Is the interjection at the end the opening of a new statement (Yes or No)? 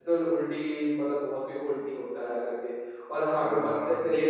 No